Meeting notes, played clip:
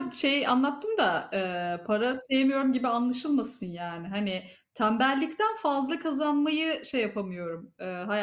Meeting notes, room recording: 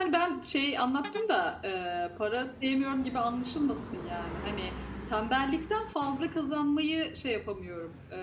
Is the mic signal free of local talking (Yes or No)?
Yes